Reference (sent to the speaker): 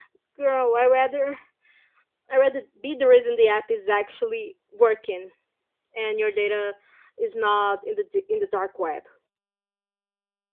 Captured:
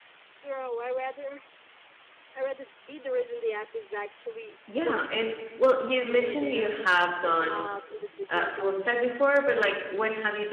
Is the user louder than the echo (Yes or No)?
Yes